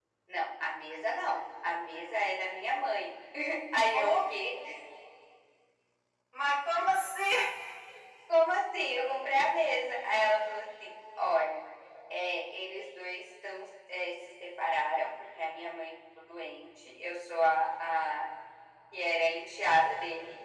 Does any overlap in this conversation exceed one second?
No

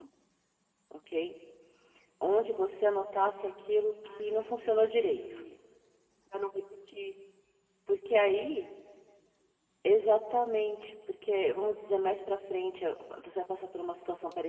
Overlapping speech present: Yes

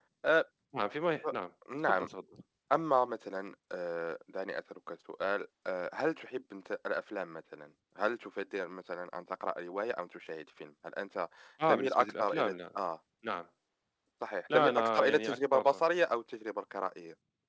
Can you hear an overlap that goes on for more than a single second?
Yes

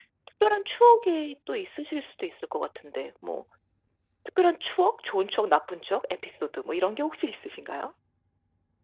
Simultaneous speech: No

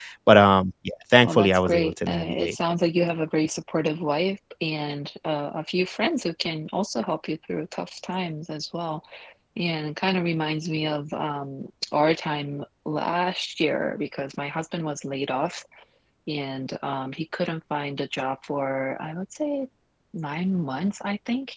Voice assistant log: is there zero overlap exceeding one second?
No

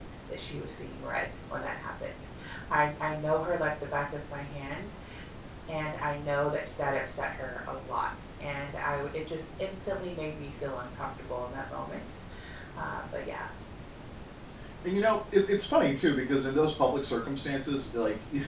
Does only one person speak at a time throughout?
Yes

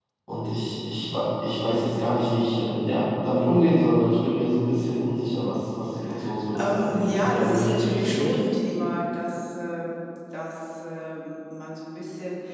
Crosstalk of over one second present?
Yes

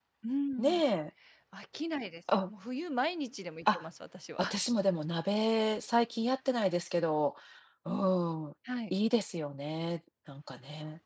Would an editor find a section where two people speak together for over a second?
No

